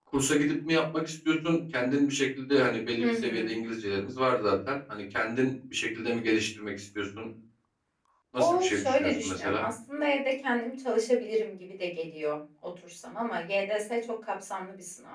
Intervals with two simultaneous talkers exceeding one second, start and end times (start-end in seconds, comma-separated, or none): 8.4-9.6